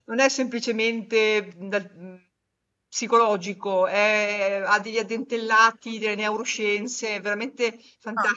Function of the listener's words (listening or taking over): taking over